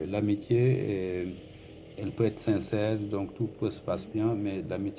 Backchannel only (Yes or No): Yes